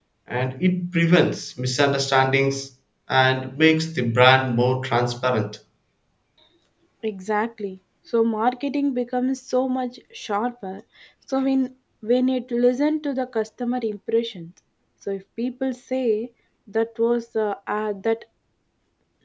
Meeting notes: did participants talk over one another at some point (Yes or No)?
No